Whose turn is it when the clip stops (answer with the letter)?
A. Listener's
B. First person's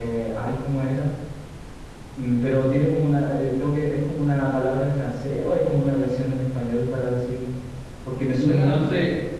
A